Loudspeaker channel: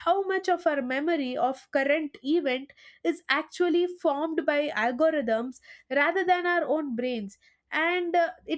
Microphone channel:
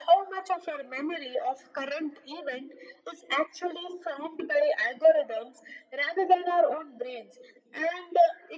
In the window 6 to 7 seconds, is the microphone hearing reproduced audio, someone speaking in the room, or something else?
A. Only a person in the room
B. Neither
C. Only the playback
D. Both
C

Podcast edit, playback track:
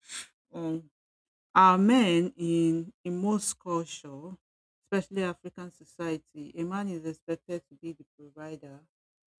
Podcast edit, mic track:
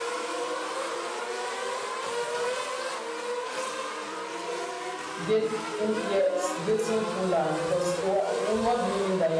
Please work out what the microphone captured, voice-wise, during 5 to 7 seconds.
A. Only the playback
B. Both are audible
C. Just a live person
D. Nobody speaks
C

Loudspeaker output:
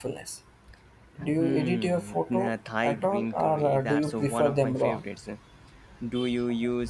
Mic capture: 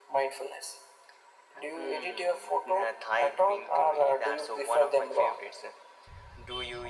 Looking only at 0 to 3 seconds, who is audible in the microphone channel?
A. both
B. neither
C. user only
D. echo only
D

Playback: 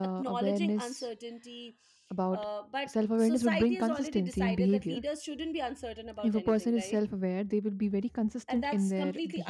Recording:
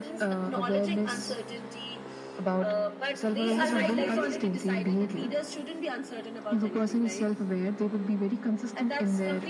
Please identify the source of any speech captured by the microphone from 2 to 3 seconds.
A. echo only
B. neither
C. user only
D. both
A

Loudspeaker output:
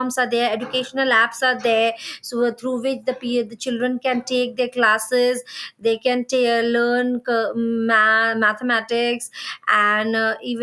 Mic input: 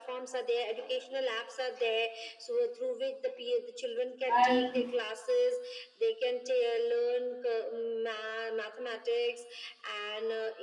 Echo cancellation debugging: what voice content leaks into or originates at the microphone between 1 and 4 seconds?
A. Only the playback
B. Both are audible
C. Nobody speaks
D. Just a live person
A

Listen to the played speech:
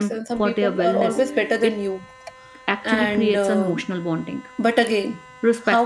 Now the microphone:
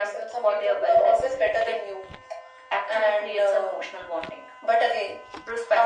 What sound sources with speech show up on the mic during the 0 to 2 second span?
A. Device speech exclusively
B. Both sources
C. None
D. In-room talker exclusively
A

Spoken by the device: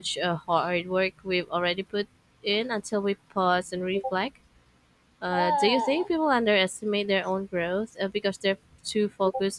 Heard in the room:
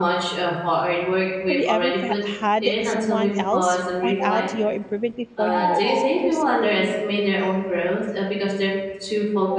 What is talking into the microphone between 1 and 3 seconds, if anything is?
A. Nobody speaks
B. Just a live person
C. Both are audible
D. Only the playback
C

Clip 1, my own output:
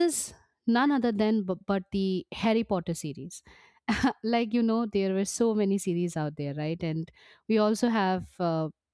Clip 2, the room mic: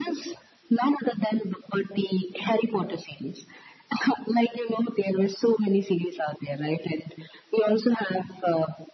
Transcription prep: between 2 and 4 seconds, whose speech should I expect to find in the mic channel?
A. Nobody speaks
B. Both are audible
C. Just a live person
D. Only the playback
D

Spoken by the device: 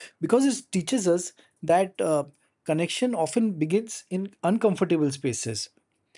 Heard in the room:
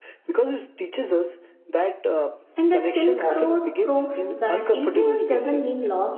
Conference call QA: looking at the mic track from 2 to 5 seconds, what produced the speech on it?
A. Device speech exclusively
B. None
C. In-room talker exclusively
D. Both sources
D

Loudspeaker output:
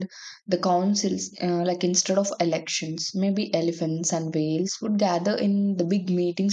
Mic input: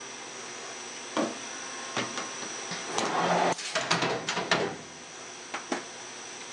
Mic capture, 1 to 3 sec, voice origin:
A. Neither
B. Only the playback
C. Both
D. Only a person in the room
A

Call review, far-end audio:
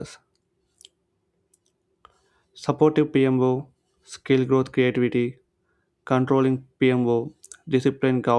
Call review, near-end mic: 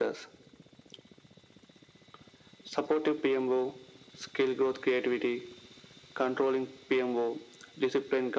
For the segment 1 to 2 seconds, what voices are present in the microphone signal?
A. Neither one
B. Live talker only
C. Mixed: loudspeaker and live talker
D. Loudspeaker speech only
A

